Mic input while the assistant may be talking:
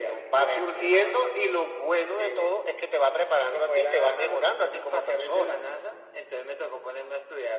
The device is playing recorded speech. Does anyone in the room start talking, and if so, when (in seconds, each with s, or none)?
none